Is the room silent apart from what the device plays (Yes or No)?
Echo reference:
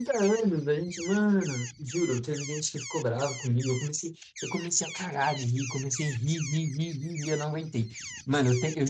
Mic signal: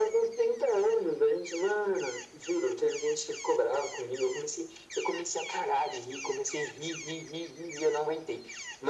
Yes